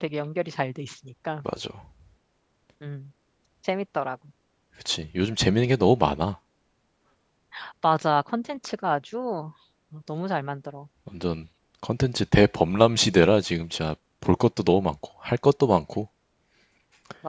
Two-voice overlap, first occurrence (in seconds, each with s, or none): none